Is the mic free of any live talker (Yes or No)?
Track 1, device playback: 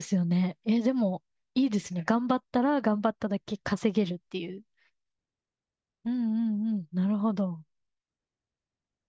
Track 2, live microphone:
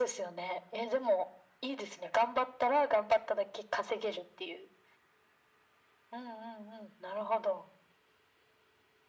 Yes